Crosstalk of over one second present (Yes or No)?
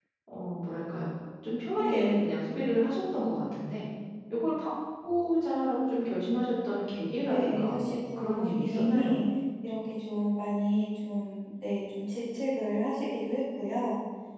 Yes